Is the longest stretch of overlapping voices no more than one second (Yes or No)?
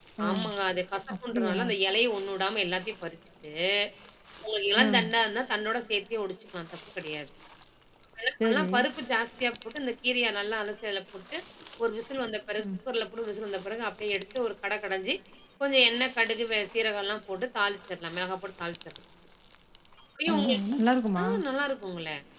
Yes